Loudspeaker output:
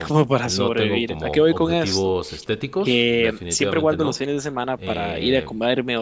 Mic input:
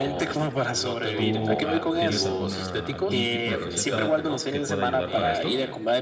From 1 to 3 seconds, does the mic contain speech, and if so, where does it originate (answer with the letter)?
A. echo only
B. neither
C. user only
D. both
D